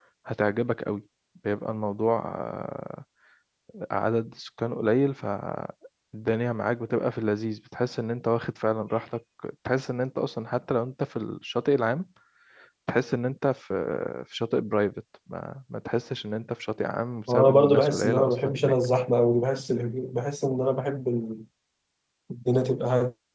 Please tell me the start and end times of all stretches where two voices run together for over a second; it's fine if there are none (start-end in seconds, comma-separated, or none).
17.3-18.8